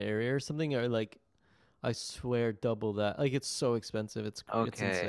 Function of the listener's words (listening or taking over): taking over